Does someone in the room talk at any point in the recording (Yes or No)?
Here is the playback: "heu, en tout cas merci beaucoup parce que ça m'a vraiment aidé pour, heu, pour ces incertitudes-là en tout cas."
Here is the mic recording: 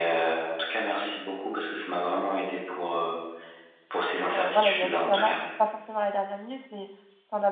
Yes